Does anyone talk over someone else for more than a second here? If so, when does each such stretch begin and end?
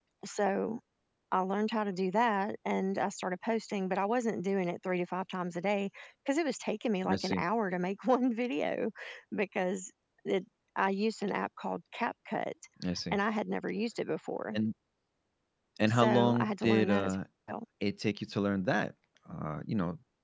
15.9-17.2

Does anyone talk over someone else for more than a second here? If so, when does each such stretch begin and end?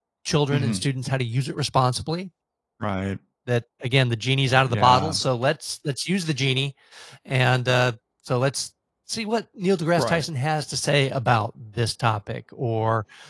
none

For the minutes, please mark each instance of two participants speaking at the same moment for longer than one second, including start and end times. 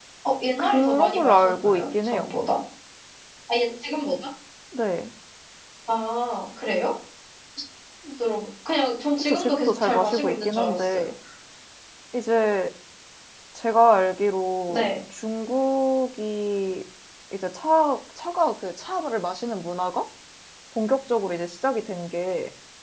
0.6-2.3, 9.2-11.1

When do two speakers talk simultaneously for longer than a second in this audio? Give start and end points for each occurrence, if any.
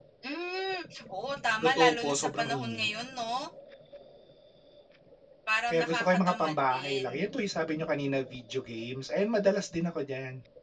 1.6-2.9, 5.7-7.1

